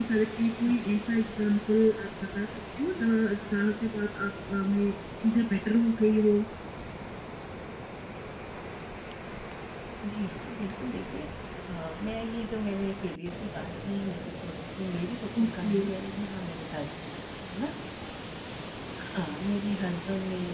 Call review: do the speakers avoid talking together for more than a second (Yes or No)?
Yes